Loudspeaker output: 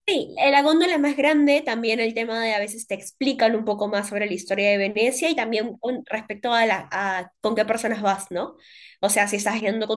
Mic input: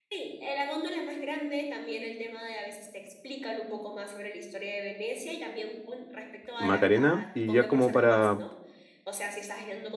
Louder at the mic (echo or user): user